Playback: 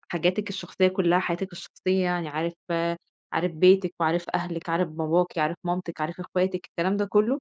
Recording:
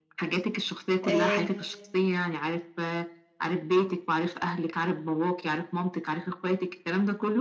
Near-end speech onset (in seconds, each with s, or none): 1.0 s